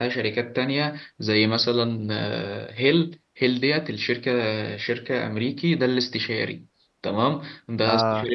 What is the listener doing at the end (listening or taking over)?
listening